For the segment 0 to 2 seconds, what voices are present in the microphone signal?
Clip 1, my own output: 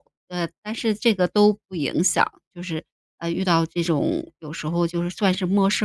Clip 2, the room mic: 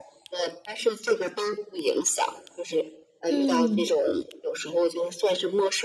echo only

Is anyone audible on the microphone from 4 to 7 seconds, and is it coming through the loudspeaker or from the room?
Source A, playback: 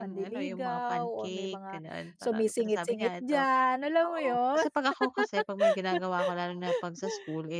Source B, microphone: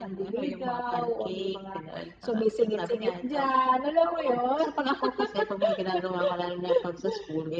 echo only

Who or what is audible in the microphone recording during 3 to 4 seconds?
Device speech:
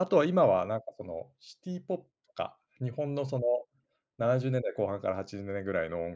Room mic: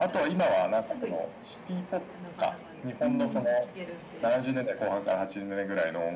both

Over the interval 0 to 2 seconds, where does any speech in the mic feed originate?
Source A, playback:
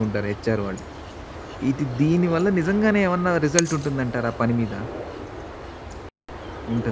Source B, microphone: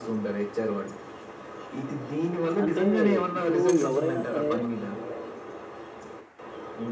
echo only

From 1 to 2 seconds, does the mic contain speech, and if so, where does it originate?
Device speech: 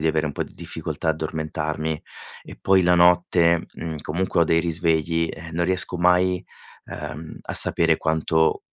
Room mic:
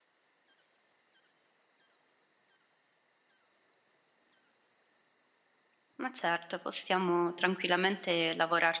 neither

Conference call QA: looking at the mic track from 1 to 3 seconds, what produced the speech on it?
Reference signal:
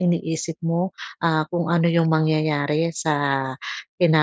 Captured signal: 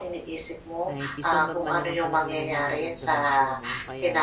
both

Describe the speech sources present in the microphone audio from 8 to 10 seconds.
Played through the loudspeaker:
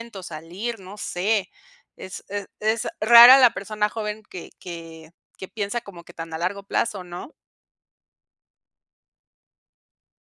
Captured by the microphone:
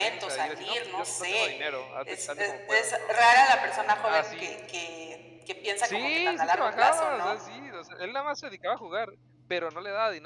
user only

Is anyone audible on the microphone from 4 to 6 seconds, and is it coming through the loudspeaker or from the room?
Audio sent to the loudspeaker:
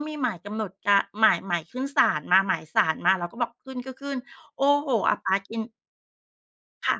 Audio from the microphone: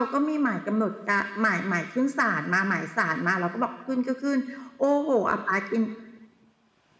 echo only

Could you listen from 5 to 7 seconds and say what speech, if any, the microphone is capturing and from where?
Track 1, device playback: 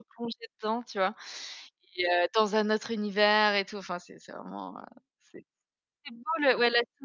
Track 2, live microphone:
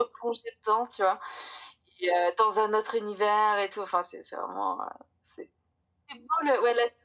echo only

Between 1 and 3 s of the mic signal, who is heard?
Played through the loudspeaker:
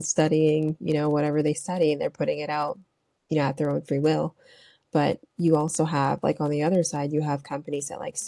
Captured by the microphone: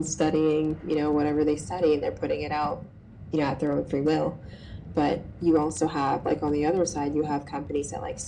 echo only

